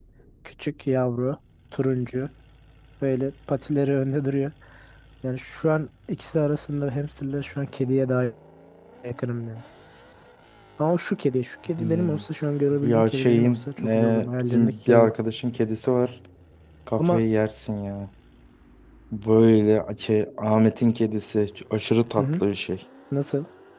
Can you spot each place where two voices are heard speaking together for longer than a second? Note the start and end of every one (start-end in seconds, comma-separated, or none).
12.8-15.1